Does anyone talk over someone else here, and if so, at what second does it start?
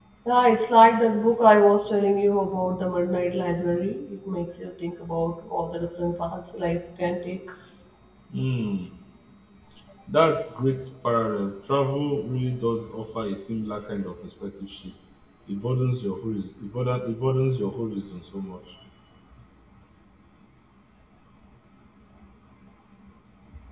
none

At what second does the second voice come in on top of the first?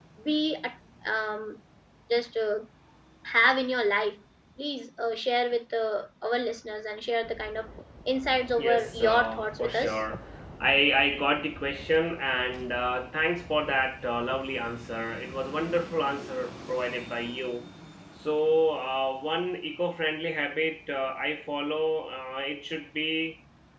8.6 s

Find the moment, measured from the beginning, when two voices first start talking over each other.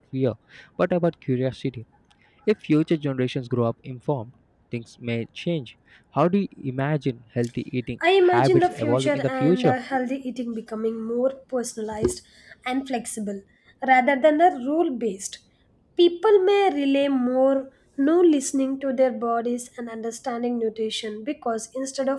8.0 s

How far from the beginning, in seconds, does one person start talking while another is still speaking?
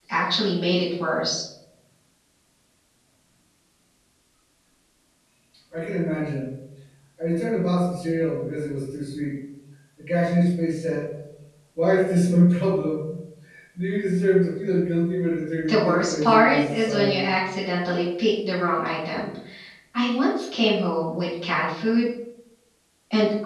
15.7 s

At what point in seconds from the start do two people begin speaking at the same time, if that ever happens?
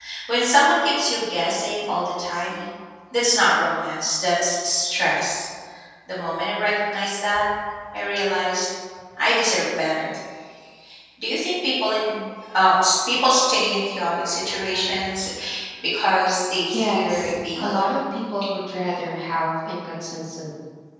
16.7 s

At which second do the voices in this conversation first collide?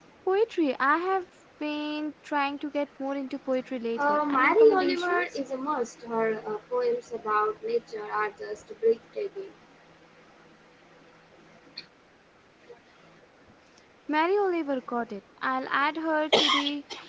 4.0 s

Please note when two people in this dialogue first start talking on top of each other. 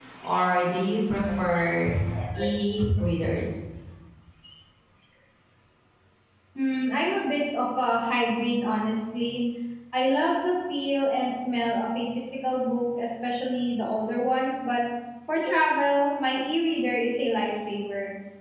none

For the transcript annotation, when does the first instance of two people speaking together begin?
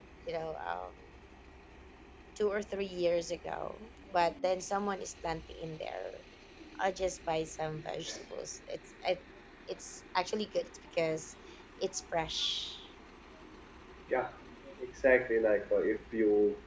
none

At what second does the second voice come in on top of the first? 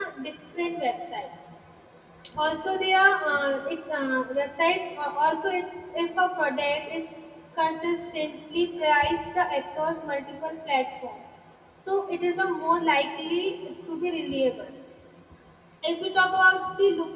none

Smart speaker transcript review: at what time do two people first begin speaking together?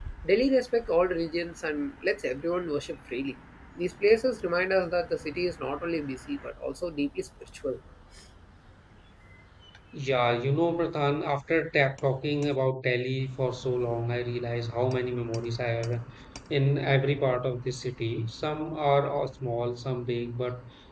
none

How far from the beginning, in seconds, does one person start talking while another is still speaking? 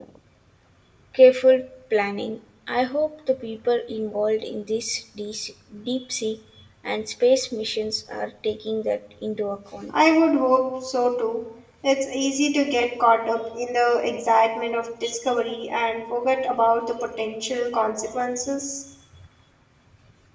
none

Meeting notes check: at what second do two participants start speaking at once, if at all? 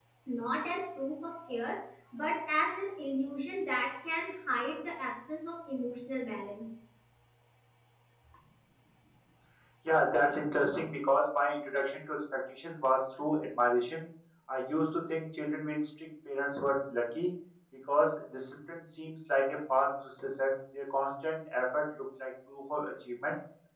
none

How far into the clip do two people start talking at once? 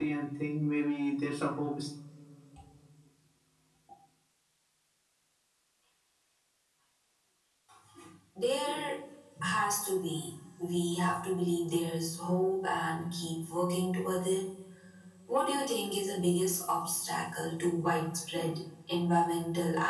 none

